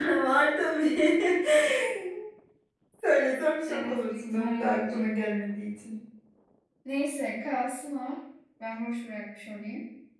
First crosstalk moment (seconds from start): 3.7 s

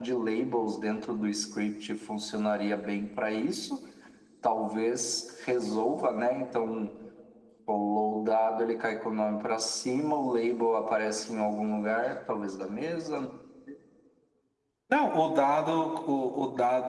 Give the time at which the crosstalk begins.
none

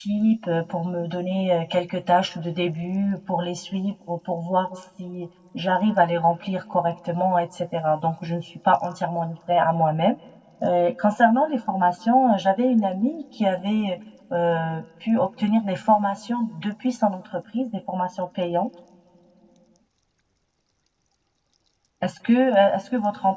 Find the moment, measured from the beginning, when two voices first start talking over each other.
none

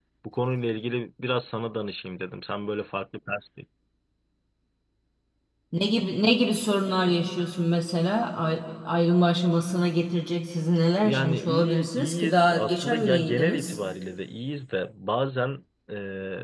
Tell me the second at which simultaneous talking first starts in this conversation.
11.0 s

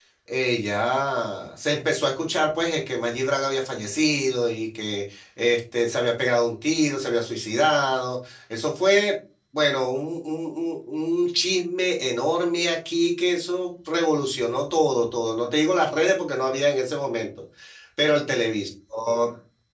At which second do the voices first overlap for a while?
none

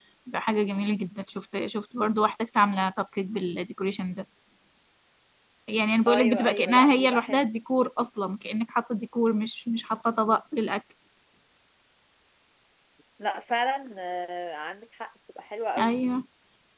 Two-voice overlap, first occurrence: 6.1 s

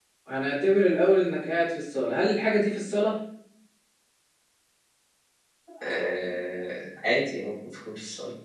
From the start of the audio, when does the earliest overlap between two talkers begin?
none

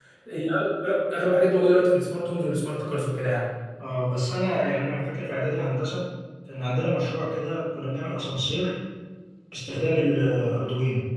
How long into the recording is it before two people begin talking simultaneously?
none

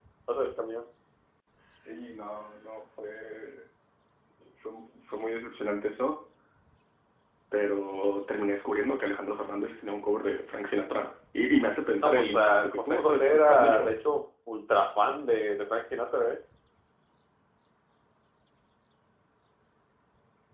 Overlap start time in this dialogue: 12.0 s

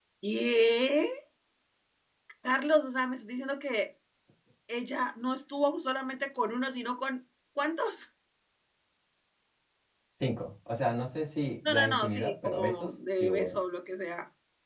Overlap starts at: 11.6 s

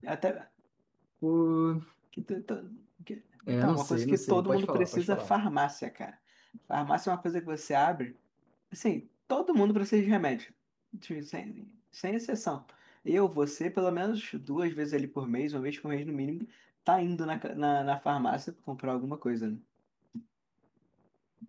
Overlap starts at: 3.5 s

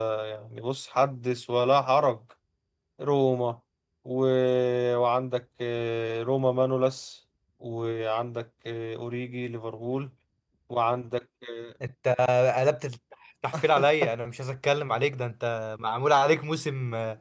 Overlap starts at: none

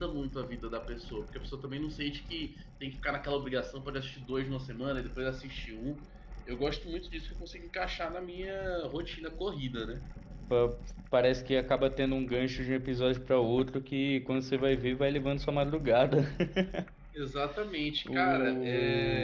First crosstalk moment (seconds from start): 18.1 s

